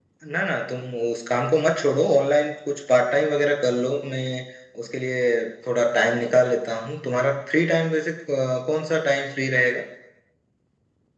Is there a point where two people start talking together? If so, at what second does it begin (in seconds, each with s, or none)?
none